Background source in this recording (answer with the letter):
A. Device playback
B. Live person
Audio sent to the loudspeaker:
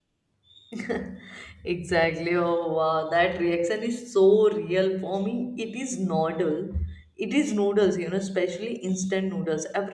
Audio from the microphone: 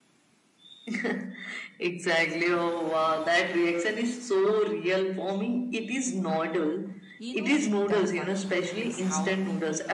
B